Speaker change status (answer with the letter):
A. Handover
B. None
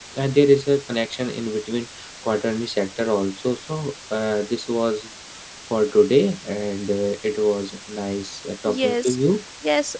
A